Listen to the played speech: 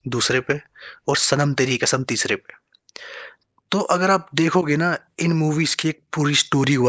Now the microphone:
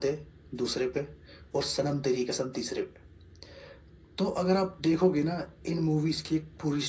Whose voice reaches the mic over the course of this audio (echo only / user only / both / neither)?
echo only